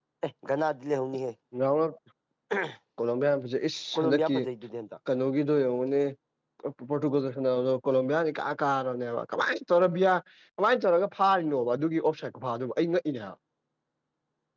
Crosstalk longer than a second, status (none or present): none